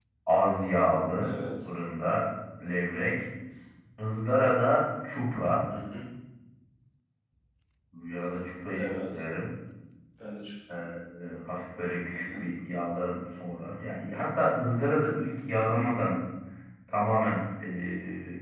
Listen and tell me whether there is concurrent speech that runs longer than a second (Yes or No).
No